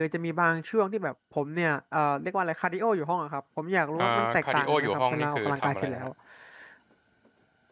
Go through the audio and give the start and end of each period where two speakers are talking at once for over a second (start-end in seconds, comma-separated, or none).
4.0-6.1